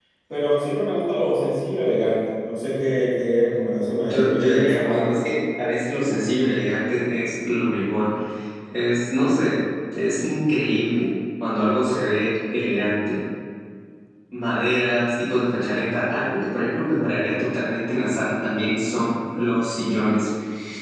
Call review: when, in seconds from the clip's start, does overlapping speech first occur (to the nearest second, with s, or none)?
4 s